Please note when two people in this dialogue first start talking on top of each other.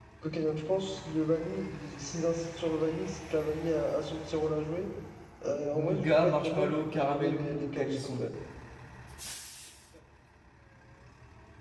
5.7 s

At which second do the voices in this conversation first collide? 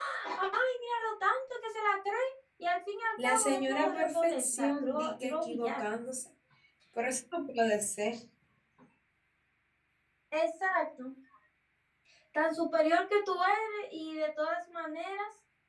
3.2 s

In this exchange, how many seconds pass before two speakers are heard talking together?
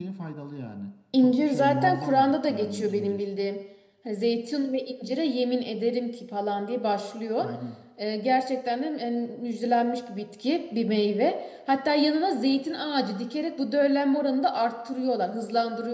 1.2 s

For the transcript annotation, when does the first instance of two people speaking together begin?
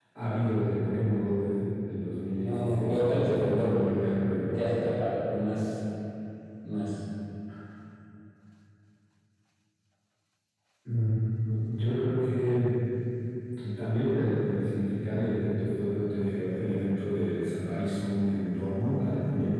2.4 s

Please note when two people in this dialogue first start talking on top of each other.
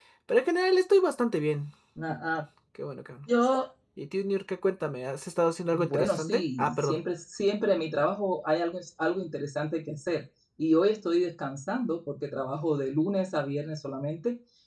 5.7 s

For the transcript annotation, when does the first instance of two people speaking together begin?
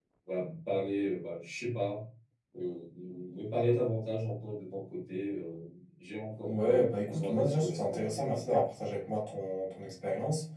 6.4 s

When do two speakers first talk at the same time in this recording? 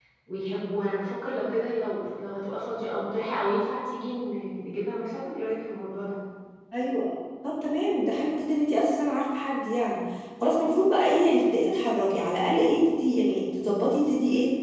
none

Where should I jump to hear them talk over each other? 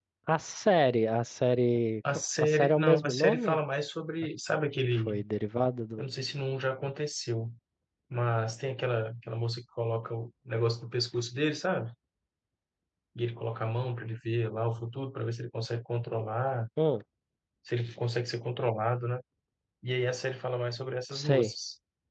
2.1 s

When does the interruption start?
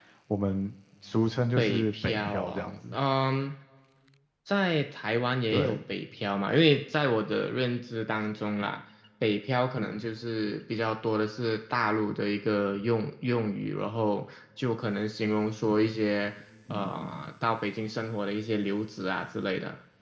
1.6 s

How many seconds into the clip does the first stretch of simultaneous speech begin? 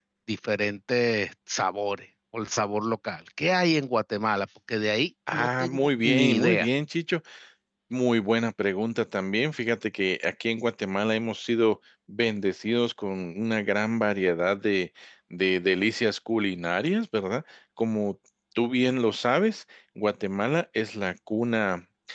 5.3 s

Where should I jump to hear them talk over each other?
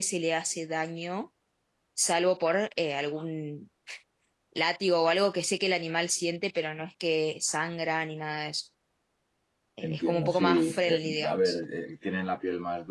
9.8 s

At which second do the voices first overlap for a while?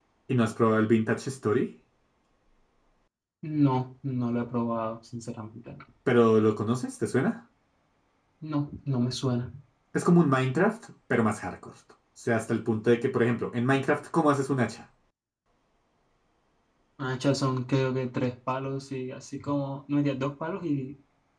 none

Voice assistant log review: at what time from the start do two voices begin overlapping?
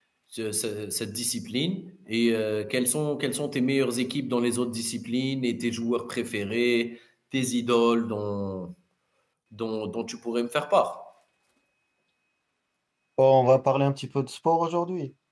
none

